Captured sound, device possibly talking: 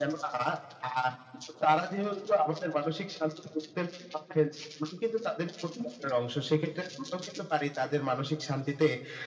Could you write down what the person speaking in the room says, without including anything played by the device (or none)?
none